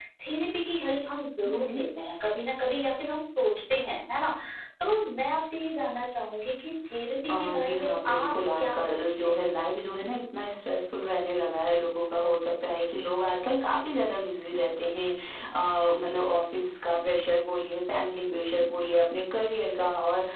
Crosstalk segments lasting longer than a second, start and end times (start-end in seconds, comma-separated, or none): 7.3-9.3